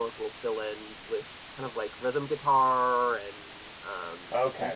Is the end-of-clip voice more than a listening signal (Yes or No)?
Yes